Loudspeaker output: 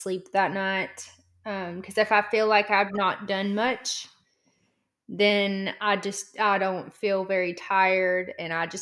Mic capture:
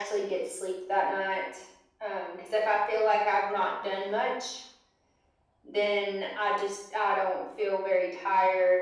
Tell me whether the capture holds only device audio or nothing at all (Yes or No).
Yes